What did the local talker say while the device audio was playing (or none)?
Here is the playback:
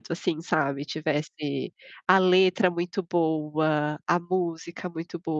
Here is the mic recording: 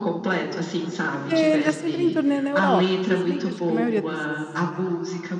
Porque ele já sempre em turnê na Europa, né. Se bem que acho que a maioria, eh, desses